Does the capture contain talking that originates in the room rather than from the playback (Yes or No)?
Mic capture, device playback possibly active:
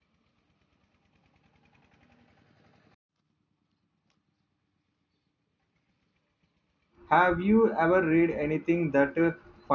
Yes